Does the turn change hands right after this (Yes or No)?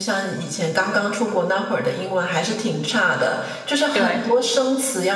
No